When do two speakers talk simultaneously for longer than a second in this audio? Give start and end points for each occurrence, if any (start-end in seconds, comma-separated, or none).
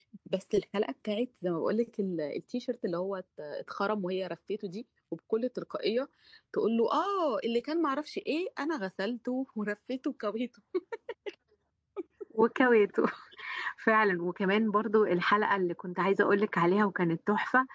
none